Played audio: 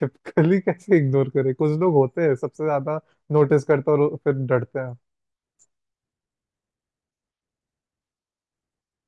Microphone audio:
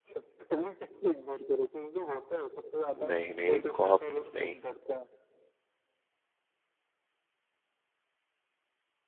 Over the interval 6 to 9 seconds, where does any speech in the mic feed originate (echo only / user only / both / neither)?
neither